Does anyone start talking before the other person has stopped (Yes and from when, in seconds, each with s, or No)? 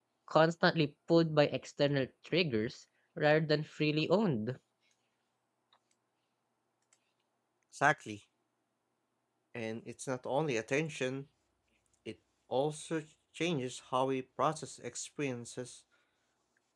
No